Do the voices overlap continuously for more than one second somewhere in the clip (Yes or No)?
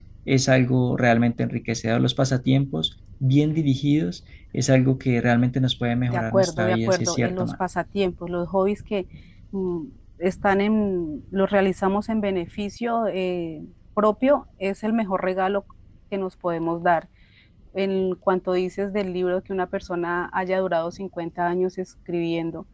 Yes